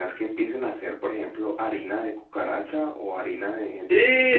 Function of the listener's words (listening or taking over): listening